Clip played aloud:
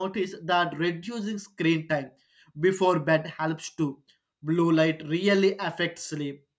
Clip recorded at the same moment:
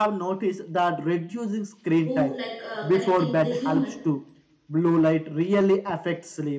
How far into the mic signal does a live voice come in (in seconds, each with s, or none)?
2.0 s